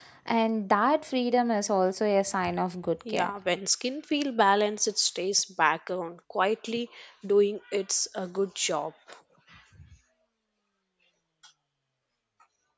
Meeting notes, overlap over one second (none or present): none